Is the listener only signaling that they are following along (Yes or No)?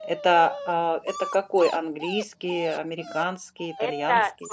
No